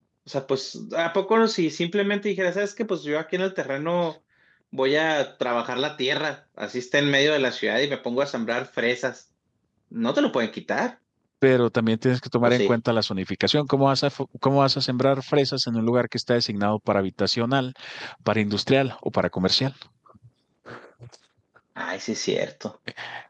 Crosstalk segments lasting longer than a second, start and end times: none

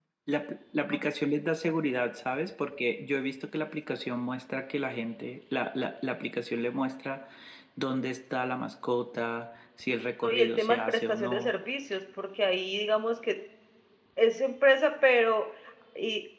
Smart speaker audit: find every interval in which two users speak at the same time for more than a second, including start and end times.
10.2-11.5

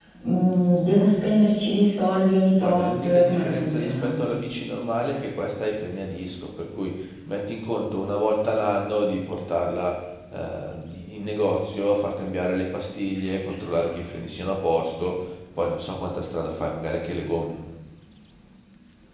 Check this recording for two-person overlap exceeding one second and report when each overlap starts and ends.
2.6-4.1

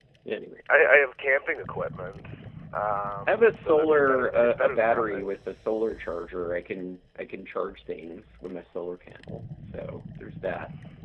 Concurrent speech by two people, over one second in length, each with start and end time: 3.3-5.3

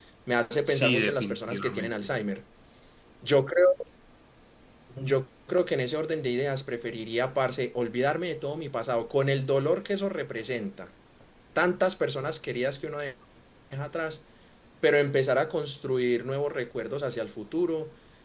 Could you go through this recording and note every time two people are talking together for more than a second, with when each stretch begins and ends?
0.7-2.2

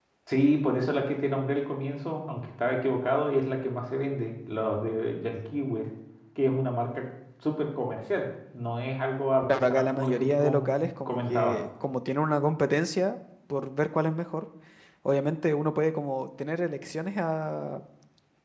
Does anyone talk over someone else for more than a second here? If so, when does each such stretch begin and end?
9.5-11.6

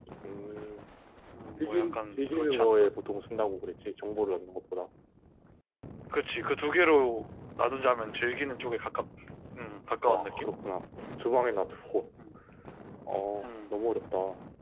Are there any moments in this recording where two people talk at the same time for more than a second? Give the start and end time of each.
1.6-2.9

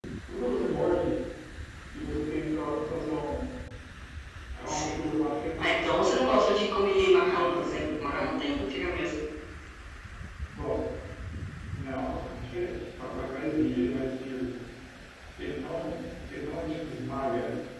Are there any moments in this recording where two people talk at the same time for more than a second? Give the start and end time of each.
6.9-8.3

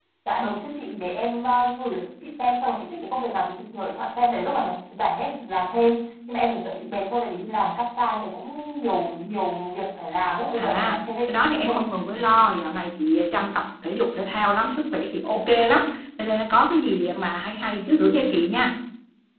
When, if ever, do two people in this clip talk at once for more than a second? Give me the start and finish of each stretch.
10.6-11.8

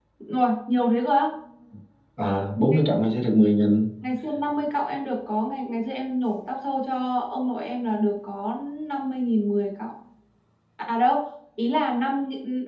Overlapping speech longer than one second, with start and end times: none

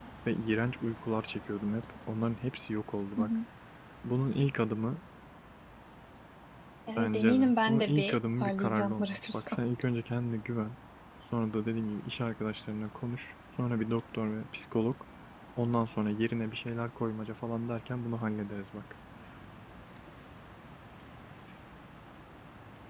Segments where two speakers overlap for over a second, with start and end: 7.0-9.6

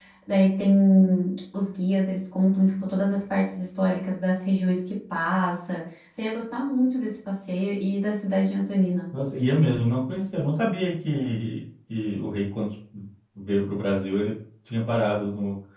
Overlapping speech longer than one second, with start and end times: none

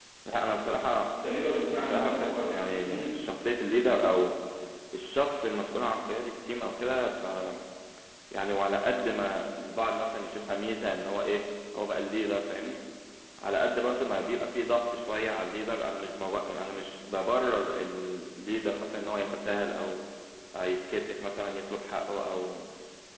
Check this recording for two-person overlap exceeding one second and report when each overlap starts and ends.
1.8-3.2

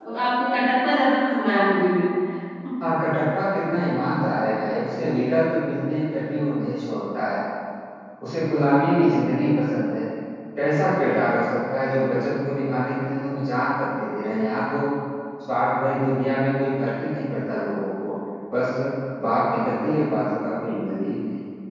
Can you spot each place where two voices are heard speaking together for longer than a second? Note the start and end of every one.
none

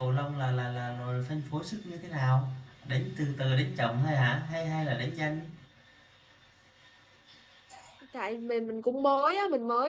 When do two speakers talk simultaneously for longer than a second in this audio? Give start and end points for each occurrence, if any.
none

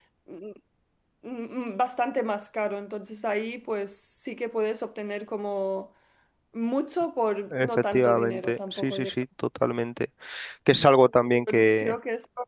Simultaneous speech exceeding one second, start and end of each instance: 7.5-9.2

